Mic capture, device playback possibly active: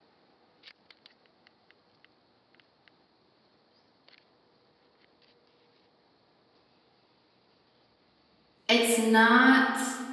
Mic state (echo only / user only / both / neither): user only